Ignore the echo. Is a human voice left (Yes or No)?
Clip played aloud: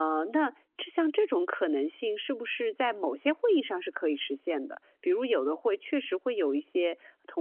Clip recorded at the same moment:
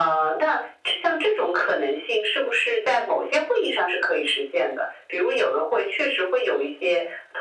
No